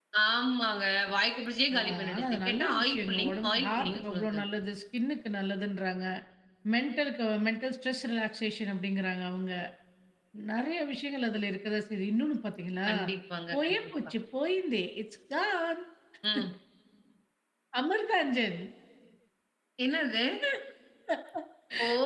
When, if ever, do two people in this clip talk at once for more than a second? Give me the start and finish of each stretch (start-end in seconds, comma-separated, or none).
1.7-4.4